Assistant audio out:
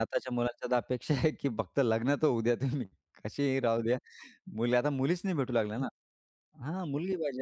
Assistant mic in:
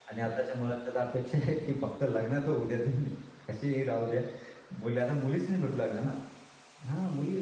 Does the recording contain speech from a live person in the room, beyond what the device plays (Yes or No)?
No